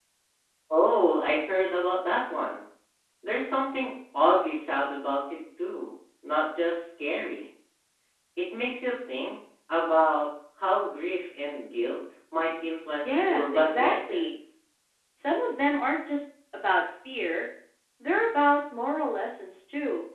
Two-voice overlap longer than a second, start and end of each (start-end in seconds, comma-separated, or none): 13.0-14.3